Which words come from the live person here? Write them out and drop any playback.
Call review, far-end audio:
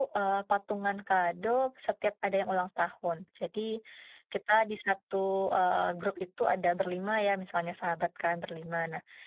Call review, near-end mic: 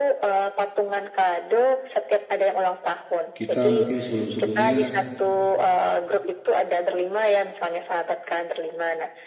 kita mungkin sebelum-sebelumnya

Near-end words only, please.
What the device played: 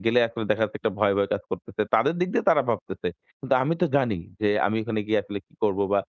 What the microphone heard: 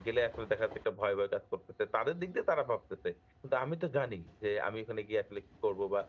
none

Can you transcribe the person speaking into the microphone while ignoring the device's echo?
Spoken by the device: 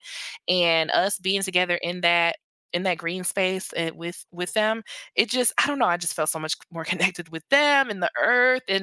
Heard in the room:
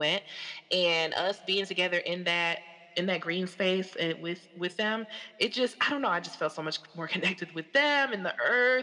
none

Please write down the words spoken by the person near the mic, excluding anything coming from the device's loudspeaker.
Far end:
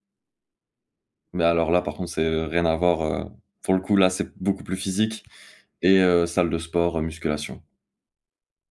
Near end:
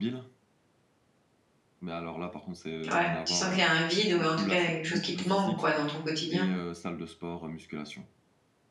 ouais, tu sens qu'il y a un vide ou en tout cas, quelque chose qui te manque quoi, dans ton quotidien?

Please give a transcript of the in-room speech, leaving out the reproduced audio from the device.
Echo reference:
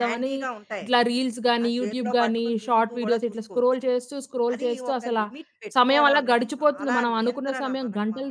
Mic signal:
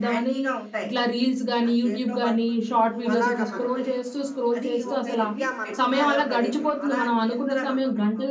అప్ అలాగా మనకి మా వృత్తిరీత్యా మనకి సాయం పడేటట్టు.

